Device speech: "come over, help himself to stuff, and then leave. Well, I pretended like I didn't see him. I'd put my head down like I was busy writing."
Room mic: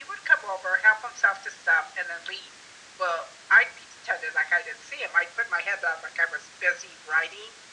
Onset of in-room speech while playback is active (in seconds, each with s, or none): none